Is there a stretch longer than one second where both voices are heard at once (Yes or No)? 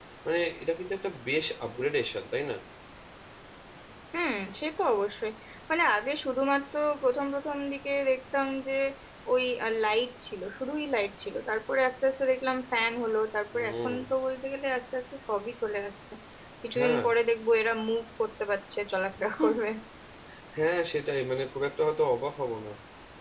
No